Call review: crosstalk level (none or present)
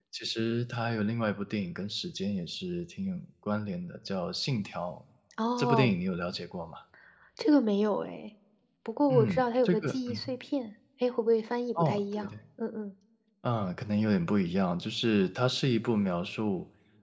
present